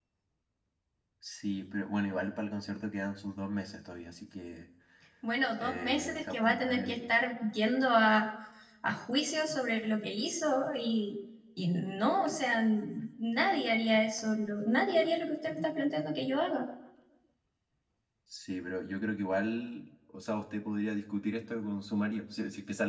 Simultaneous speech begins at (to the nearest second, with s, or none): 6 s